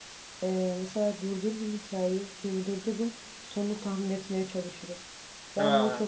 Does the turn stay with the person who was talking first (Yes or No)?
Yes